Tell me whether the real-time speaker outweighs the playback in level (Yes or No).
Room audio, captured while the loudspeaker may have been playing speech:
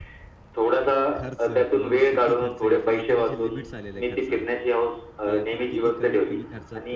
No